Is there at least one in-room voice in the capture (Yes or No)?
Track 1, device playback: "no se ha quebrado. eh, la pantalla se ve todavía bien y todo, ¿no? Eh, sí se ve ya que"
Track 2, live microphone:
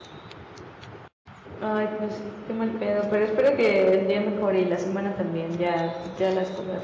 Yes